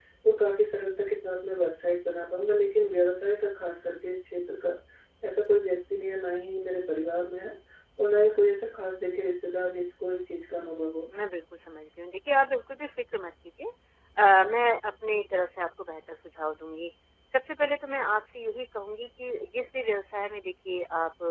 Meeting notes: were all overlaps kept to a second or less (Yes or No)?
Yes